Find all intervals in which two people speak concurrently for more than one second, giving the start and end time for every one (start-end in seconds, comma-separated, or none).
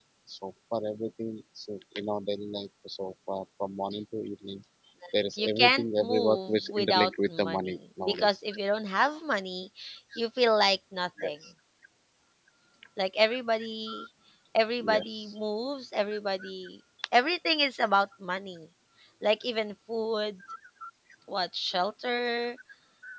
5.4-8.3